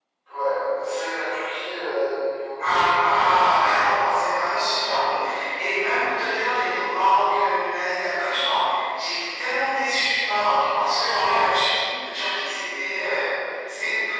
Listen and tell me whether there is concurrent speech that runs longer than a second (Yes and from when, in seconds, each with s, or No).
Yes, from 2.6 s